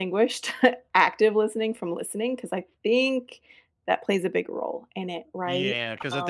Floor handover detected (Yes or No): Yes